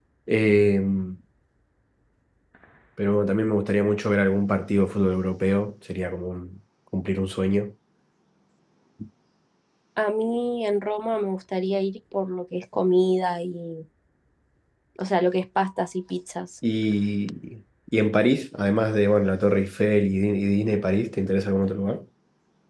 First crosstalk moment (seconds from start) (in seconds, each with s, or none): none